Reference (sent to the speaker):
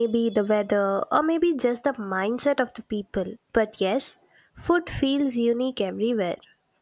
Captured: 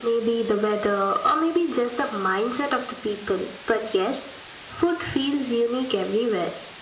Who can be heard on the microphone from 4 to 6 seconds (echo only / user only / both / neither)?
echo only